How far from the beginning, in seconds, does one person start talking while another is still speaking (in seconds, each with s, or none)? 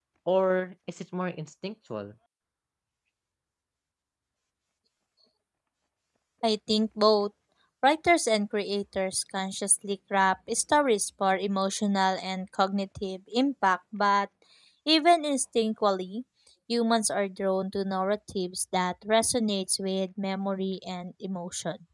none